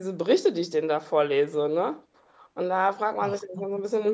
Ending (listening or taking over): listening